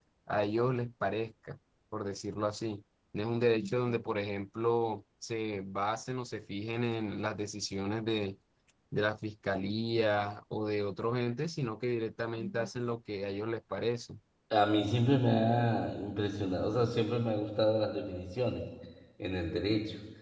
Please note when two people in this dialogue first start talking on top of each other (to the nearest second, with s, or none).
none